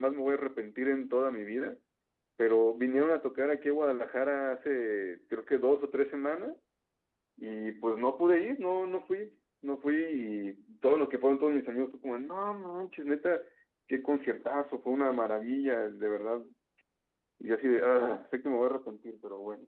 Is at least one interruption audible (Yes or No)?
No